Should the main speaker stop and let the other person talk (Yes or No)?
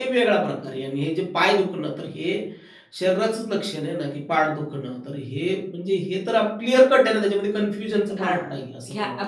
Yes